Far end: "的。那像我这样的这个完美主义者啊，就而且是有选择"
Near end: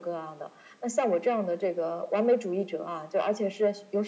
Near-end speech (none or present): none